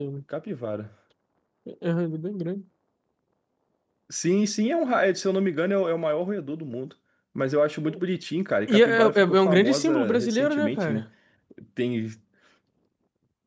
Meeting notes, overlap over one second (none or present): present